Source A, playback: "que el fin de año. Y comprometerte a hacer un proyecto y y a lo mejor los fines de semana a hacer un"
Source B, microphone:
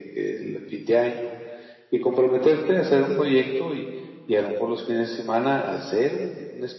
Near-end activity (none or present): none